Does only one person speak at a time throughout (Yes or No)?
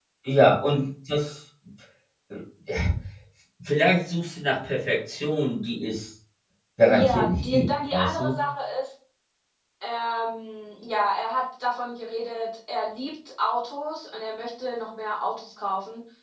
No